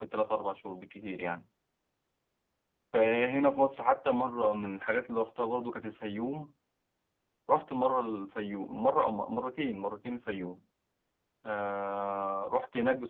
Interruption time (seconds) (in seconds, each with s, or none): none